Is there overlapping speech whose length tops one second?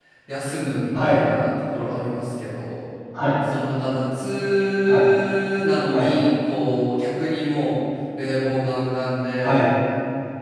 No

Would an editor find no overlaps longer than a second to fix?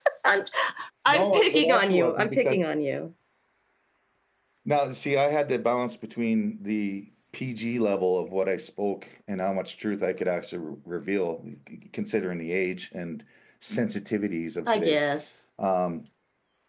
No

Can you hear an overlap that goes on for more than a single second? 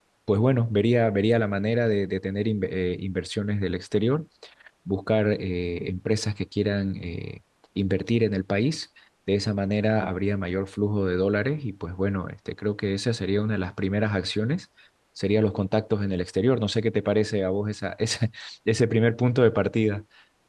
No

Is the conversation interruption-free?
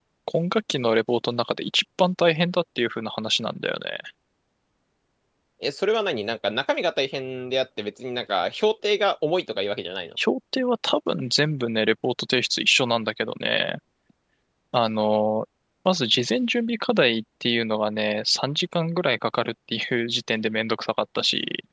Yes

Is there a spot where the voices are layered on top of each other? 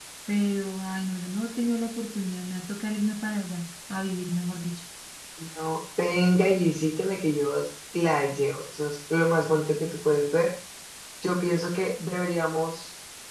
No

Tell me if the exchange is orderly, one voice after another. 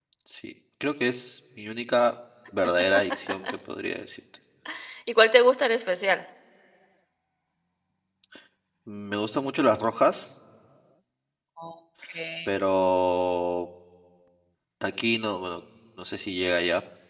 Yes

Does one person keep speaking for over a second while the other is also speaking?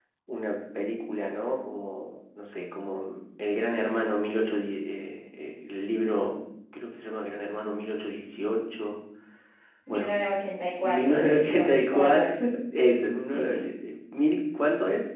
Yes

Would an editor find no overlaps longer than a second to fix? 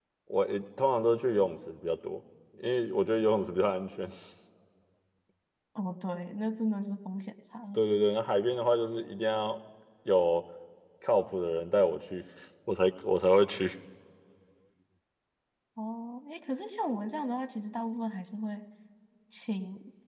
Yes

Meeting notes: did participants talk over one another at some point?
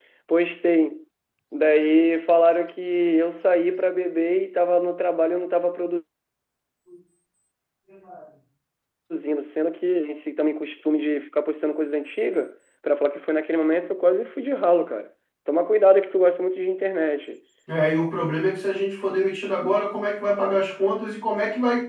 No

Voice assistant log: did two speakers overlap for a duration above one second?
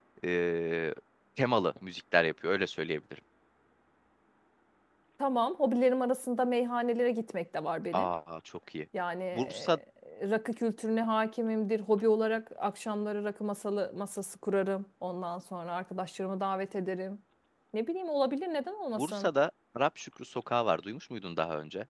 No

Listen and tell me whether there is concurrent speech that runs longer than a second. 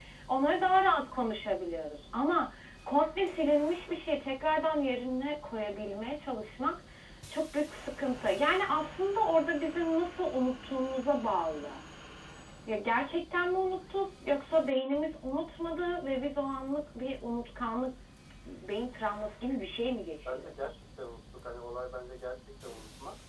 No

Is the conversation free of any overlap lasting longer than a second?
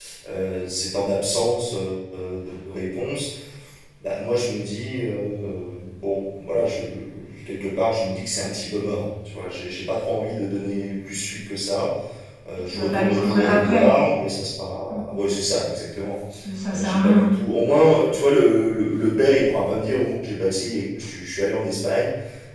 No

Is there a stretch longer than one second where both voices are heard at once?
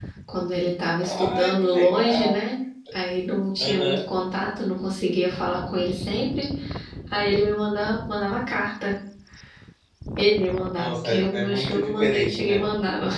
Yes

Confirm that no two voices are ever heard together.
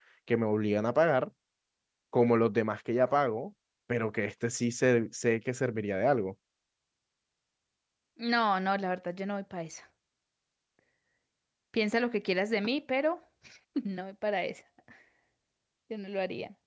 Yes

